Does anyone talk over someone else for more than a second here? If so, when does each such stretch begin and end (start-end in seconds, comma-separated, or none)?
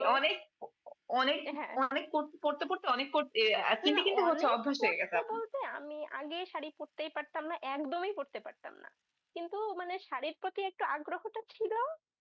3.8-5.4